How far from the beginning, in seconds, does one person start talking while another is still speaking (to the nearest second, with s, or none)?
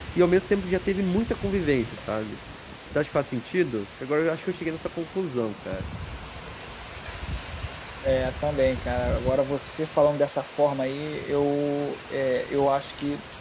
none